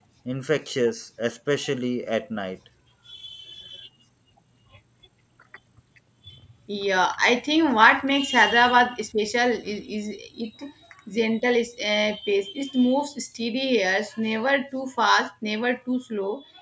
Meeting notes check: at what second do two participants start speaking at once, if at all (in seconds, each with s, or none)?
none